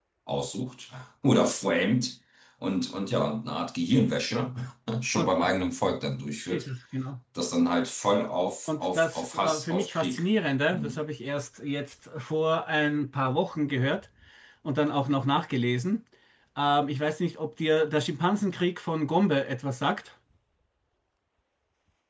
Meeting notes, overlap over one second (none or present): present